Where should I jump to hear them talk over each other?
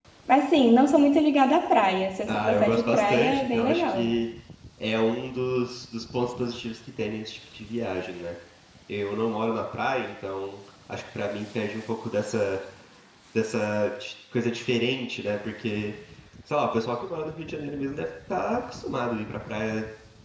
2.3 s

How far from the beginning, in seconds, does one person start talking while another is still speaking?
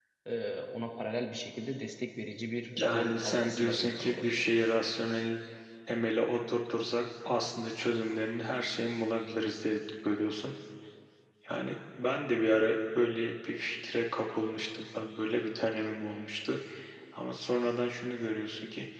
2.8 s

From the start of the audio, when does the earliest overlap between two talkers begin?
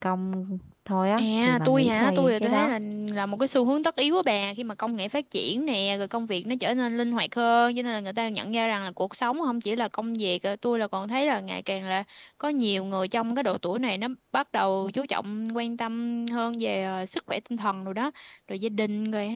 1.2 s

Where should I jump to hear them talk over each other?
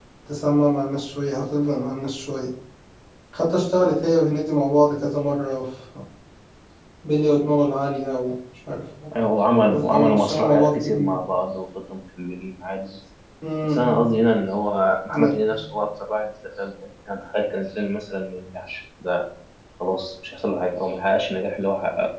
9.7 s

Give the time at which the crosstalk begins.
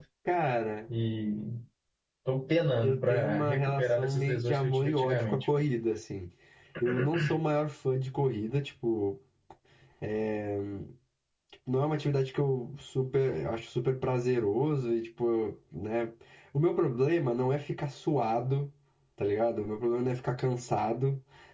2.8 s

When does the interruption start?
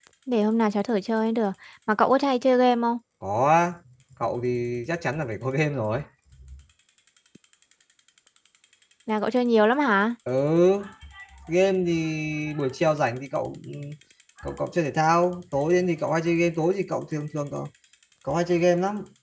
none

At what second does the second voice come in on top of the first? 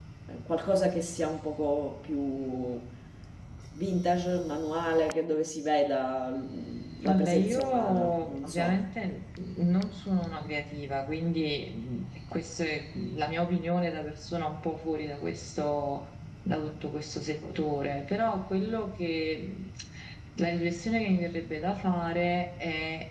7.0 s

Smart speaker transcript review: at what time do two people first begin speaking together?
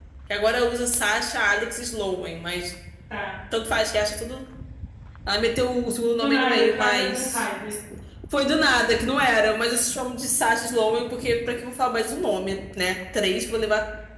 6.2 s

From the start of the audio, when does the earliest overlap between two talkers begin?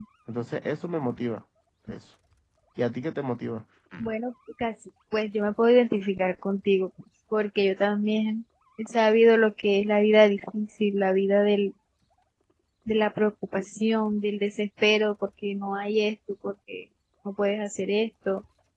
none

